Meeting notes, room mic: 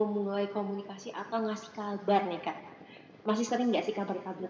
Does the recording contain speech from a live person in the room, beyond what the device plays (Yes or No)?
No